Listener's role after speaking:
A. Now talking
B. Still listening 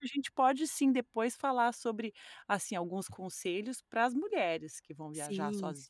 A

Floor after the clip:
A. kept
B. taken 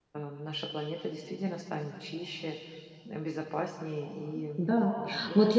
B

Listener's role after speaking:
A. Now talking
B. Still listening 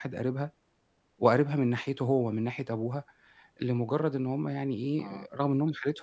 B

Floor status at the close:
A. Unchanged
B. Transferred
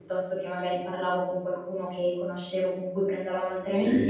A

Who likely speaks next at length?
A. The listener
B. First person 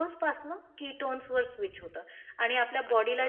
B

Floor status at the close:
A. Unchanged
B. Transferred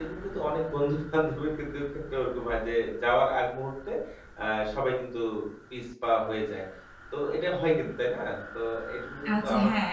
B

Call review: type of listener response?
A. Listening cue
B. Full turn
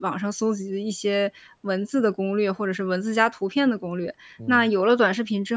A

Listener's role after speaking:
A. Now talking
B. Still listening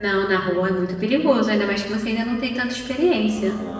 A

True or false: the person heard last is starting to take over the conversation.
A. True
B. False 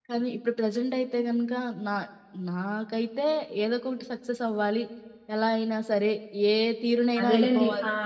A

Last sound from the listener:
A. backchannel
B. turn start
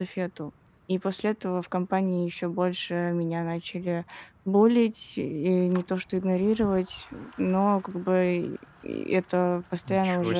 A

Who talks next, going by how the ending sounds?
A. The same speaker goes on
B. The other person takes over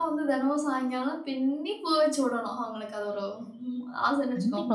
B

